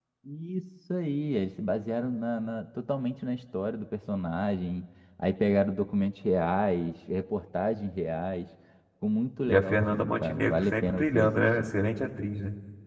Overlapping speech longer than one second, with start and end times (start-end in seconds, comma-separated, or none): 9.5-11.6